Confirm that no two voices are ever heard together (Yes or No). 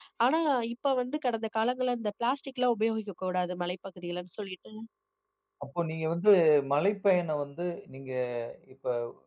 Yes